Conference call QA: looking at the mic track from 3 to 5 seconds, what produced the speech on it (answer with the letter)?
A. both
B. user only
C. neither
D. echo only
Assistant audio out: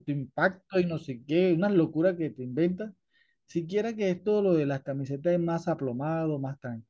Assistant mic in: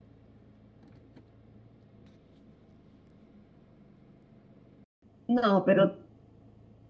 C